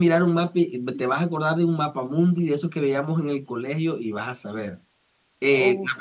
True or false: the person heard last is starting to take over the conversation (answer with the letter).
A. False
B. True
A